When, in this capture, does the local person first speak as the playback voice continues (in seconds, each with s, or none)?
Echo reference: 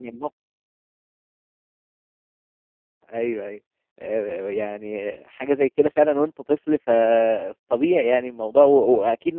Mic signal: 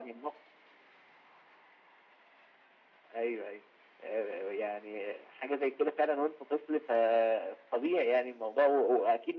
none